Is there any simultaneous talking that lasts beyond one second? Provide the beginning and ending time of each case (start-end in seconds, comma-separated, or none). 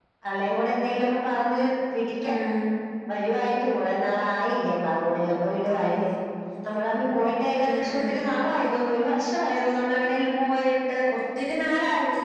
none